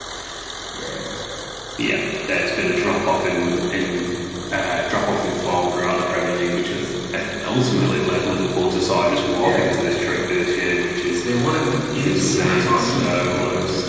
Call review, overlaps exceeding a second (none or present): present